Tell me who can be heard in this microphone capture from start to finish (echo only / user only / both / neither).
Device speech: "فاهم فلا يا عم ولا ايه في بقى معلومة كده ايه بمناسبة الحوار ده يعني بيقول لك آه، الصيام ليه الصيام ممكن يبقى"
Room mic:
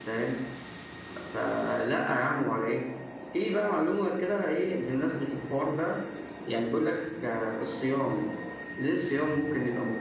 echo only